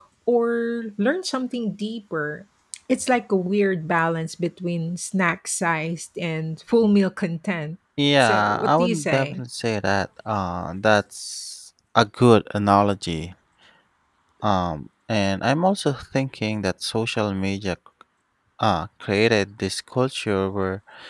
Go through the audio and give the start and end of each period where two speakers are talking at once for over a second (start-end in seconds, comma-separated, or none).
8.2-9.4